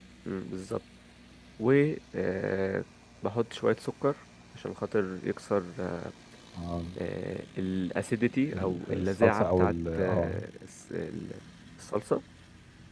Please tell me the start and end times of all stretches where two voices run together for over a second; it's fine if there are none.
8.5-10.4

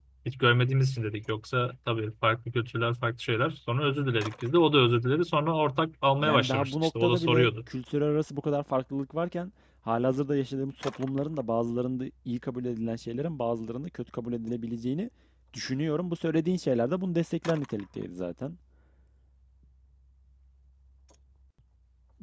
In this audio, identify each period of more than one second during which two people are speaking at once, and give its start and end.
6.2-7.5

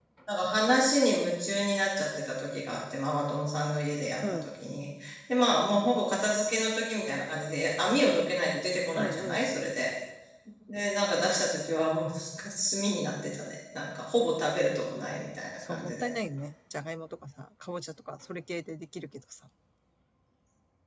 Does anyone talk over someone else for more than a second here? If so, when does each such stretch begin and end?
none

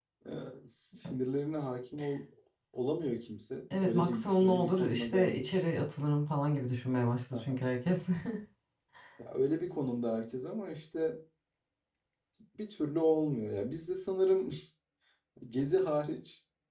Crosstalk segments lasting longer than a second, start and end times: 3.7-5.5

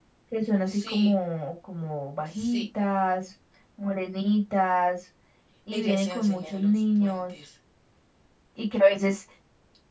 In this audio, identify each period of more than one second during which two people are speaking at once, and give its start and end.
5.7-7.3

